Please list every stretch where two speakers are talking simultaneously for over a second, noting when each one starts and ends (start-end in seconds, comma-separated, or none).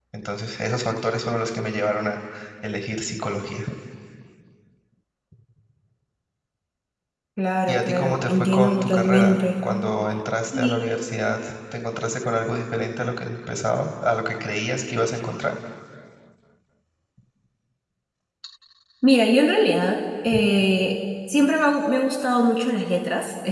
7.7-9.4